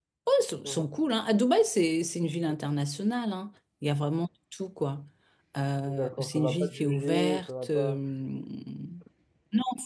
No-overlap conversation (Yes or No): No